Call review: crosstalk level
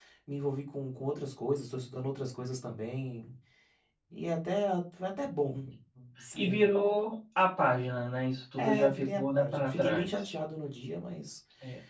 present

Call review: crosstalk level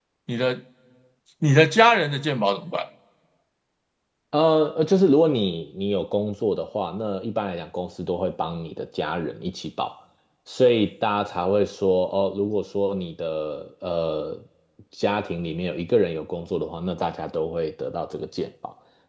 none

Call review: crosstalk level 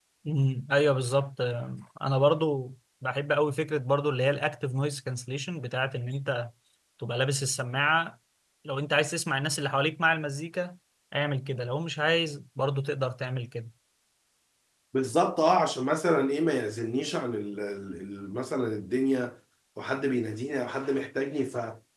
none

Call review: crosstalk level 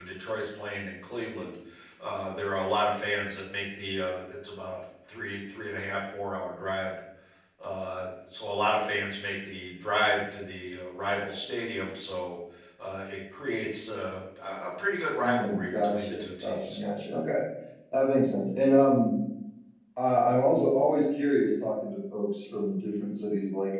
present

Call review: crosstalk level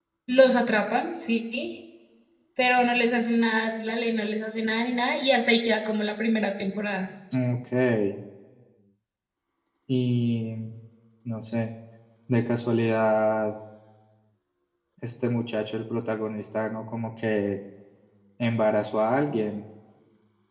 none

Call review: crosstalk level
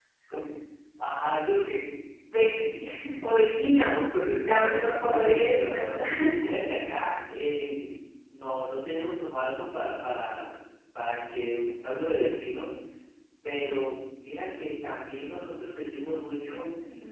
present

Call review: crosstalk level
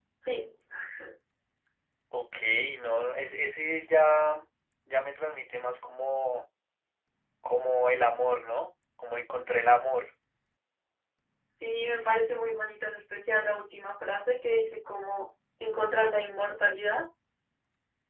none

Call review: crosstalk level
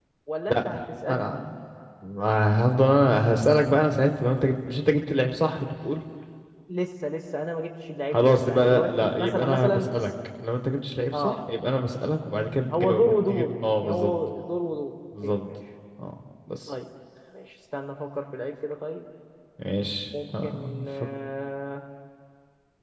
present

